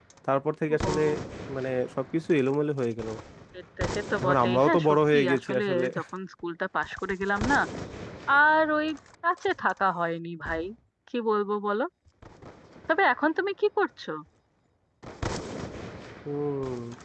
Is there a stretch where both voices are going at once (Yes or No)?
Yes